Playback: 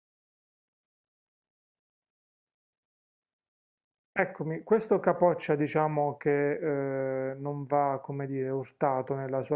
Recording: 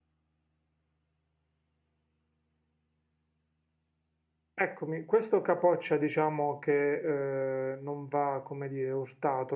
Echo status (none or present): present